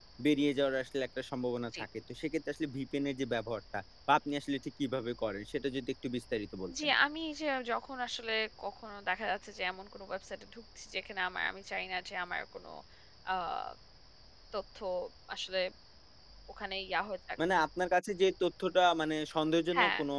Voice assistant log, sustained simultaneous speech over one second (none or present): none